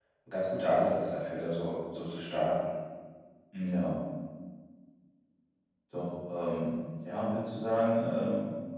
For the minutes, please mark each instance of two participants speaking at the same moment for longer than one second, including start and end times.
none

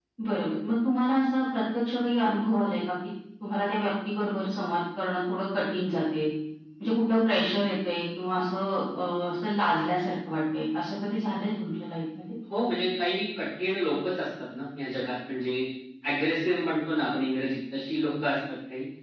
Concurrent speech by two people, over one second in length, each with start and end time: none

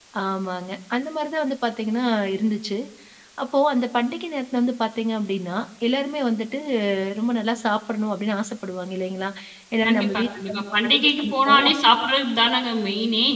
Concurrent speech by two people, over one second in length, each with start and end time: 9.8-11.7

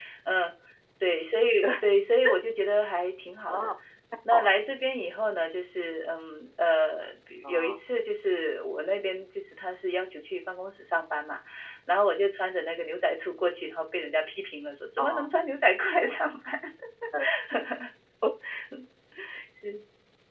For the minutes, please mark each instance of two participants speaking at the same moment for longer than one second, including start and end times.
none

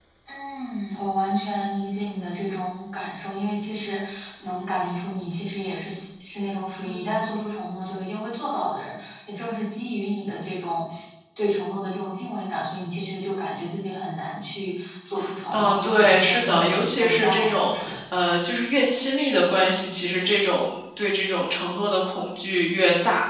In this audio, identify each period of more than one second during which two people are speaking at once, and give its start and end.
15.5-18.0

